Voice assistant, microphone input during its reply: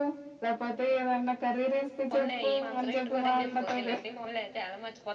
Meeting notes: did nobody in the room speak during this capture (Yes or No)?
No